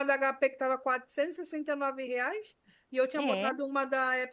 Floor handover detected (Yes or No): No